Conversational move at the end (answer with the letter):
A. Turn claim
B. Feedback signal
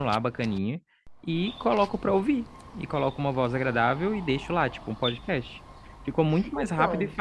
B